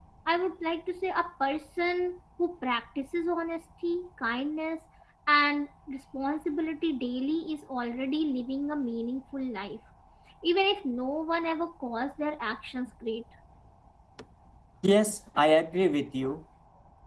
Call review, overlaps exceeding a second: none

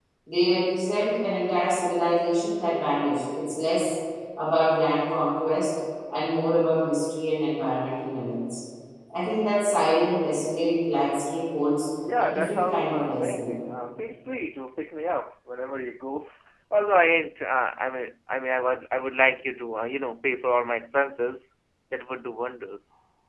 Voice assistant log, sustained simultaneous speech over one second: present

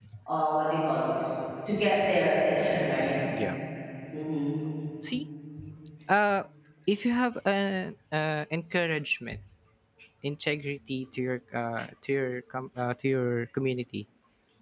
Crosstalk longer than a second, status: none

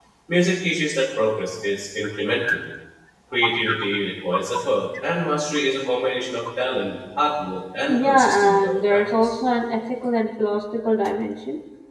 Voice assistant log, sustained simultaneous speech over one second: present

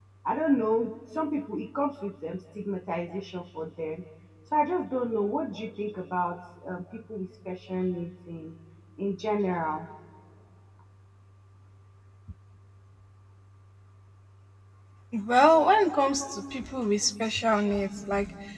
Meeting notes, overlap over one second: none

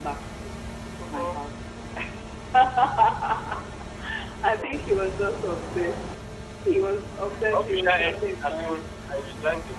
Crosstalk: present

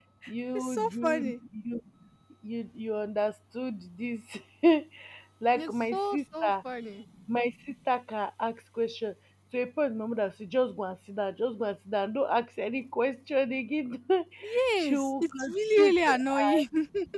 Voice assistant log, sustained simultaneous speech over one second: present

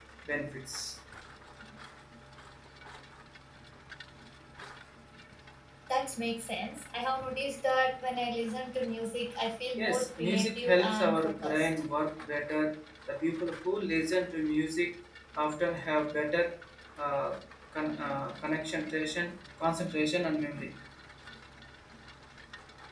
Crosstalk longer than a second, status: present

